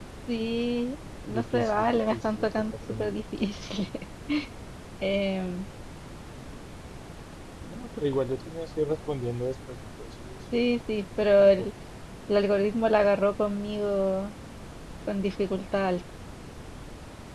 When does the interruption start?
1 s

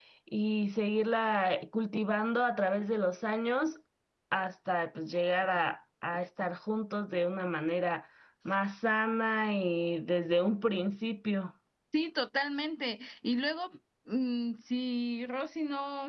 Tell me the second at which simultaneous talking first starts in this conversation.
none

